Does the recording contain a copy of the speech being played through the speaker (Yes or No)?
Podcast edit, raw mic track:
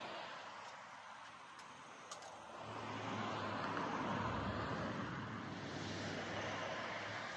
No